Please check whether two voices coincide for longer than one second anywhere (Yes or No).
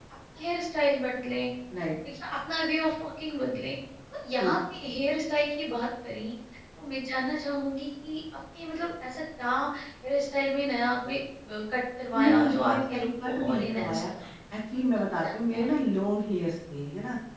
Yes